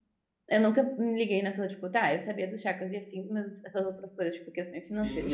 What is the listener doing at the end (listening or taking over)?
taking over